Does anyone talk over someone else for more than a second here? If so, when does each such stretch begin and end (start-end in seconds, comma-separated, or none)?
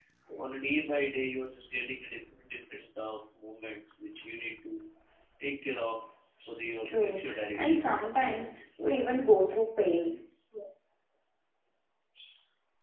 6.8-8.6